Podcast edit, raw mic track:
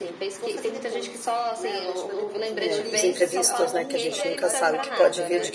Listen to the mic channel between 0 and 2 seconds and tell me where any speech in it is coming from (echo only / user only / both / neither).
echo only